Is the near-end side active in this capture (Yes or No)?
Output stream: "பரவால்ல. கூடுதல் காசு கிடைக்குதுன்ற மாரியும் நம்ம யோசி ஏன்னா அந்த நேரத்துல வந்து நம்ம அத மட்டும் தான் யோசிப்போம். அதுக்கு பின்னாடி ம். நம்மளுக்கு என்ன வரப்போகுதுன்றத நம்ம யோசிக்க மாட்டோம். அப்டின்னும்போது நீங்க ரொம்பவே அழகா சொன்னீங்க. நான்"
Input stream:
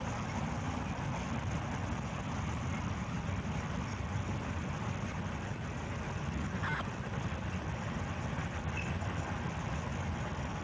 No